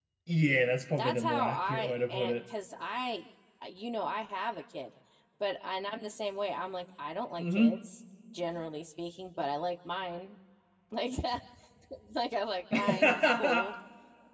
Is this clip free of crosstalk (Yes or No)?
No